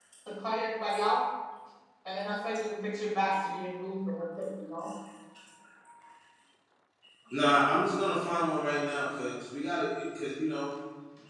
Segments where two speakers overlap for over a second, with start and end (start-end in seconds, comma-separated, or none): none